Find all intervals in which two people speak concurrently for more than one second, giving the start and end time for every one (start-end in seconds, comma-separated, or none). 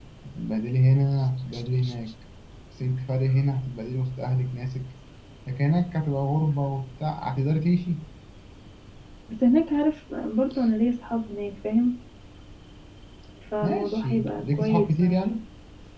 13.6-15.3